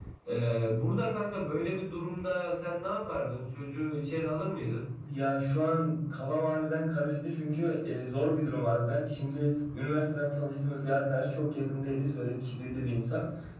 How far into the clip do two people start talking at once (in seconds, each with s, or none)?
none